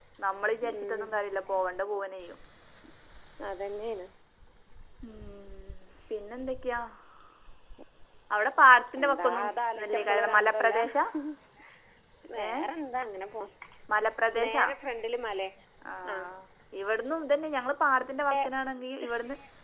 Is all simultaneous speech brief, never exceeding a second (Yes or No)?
No